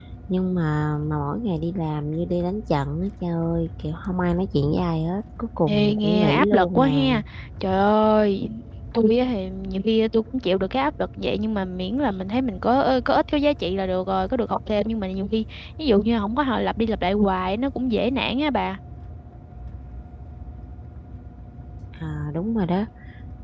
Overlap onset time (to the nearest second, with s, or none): 6 s